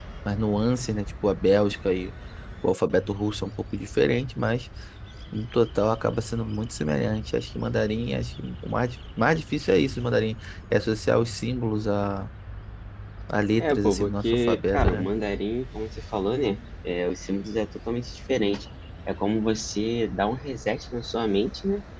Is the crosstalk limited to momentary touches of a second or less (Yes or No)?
No